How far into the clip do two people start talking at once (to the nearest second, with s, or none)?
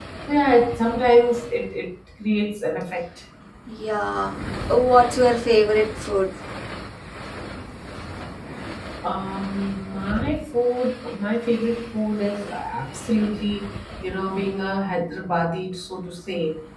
none